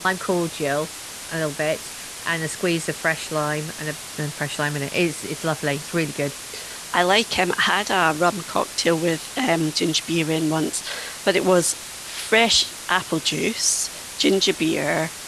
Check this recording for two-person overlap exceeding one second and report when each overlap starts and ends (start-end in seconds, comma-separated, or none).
none